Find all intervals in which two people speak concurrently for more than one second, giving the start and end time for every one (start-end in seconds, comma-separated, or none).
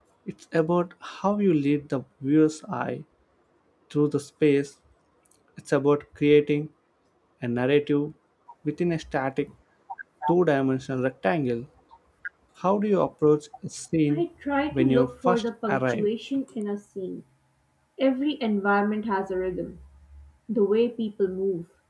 14.7-16.1